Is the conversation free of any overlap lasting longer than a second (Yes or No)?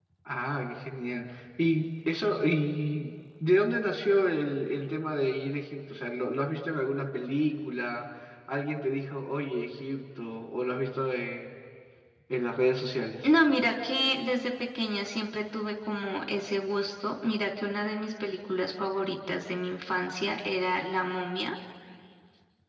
Yes